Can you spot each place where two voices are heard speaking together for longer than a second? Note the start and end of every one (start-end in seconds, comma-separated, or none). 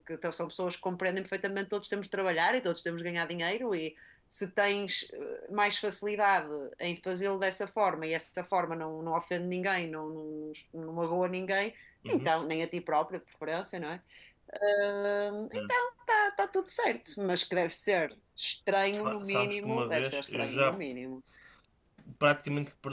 19.0-20.8